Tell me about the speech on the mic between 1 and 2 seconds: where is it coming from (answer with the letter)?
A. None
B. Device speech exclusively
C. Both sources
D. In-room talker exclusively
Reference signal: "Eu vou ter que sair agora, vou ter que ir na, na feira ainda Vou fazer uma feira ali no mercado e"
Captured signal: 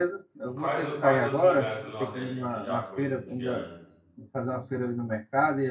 C